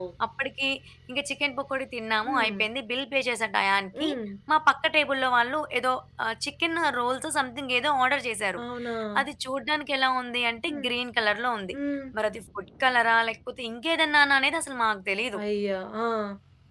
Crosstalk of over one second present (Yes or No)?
No